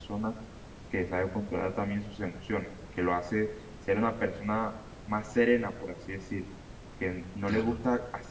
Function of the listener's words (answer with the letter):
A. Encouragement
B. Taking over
A